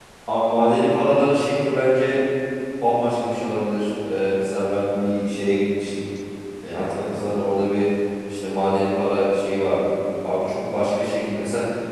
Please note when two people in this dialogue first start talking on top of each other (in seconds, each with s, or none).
none